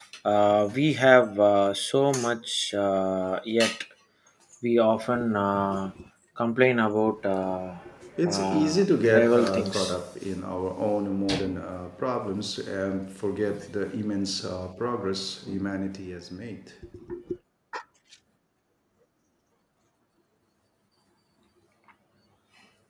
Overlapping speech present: Yes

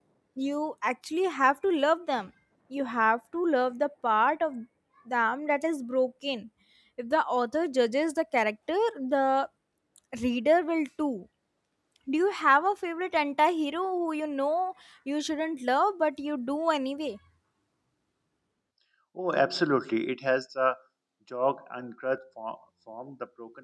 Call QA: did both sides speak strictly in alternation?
Yes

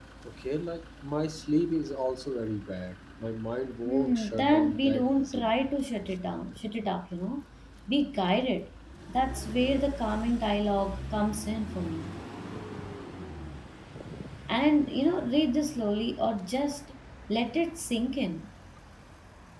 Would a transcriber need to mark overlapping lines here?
Yes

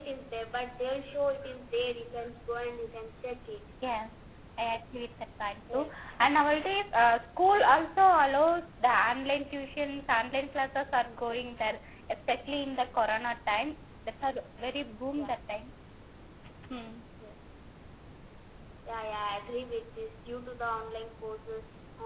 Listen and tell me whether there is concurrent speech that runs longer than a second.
No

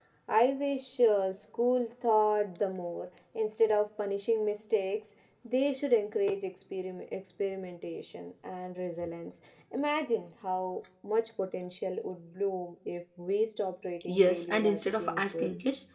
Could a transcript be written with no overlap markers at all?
No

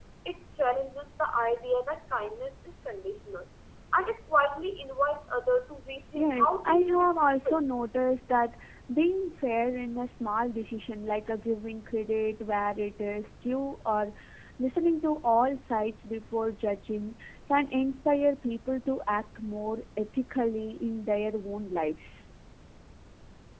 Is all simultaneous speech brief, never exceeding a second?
No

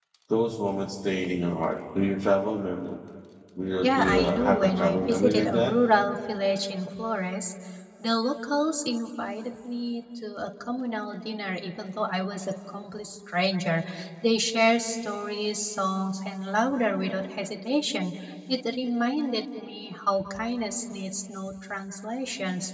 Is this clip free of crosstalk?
No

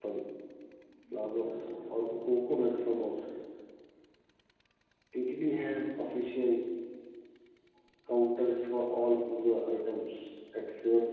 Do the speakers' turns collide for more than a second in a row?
No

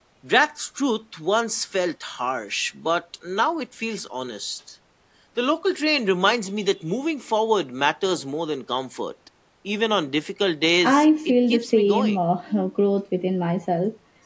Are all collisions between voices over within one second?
No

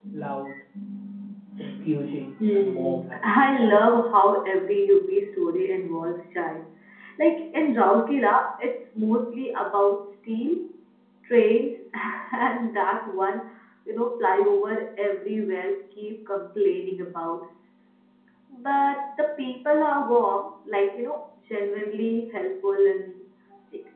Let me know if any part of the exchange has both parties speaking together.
Yes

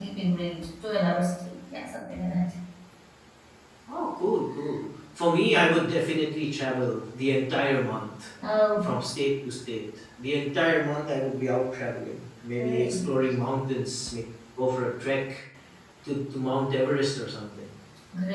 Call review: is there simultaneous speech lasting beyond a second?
No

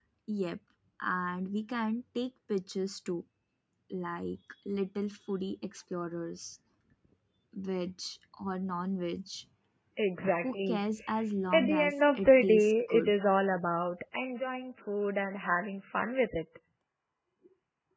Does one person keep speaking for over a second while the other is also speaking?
Yes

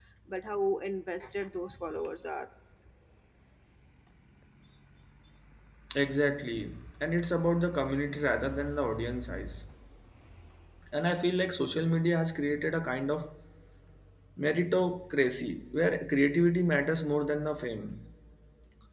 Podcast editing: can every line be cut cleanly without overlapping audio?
Yes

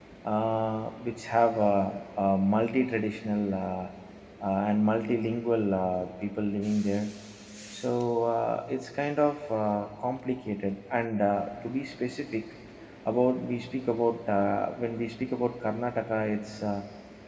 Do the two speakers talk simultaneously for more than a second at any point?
No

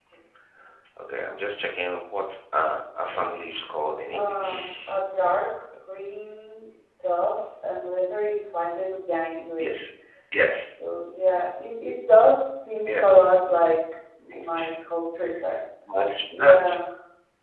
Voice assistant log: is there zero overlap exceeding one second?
No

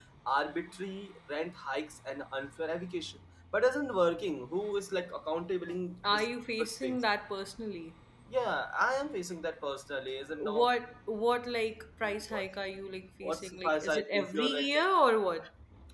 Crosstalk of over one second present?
Yes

